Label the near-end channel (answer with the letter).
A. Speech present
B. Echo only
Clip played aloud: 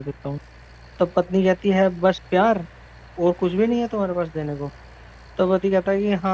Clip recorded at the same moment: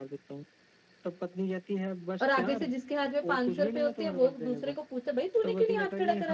A